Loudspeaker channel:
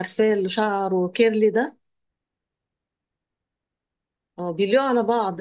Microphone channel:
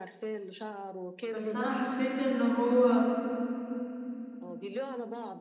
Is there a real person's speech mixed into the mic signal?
Yes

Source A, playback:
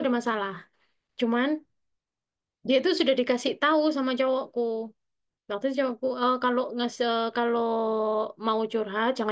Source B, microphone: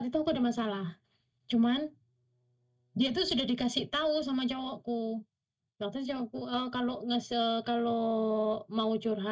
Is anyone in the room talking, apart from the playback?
No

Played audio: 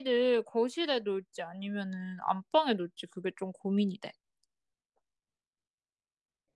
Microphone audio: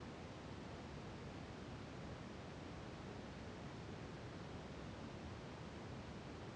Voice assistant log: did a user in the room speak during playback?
No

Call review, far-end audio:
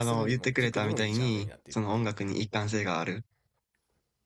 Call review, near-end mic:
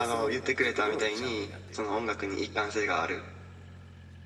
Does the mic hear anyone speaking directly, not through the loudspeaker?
No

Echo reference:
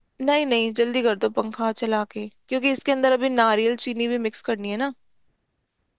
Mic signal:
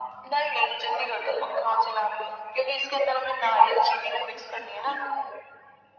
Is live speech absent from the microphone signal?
Yes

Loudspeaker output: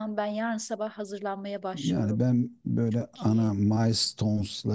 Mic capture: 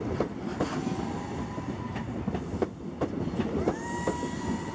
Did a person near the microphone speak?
No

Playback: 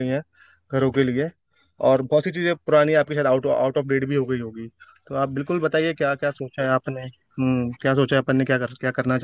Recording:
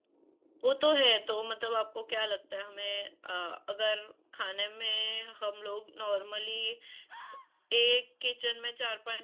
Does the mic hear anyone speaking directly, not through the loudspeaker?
Yes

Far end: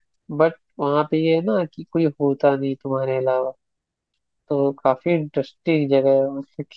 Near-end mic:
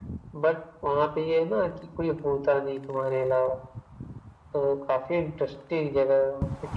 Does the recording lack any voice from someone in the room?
Yes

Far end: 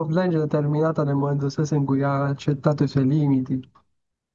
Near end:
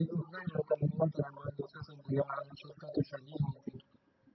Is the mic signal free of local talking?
Yes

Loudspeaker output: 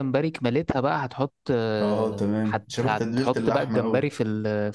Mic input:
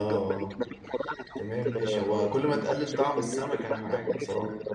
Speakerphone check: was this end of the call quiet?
No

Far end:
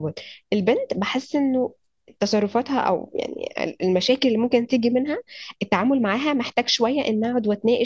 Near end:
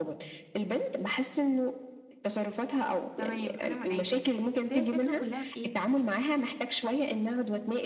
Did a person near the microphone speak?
Yes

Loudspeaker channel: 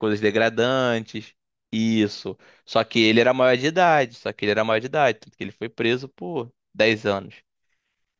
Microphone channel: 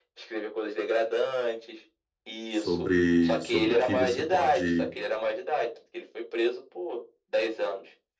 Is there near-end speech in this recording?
Yes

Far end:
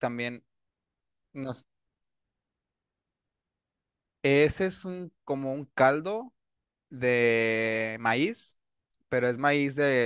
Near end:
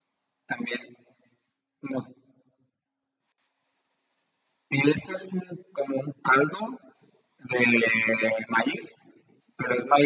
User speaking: No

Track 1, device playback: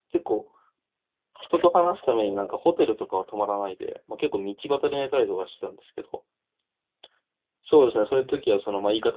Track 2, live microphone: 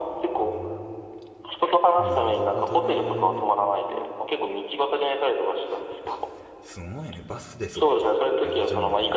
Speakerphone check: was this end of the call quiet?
No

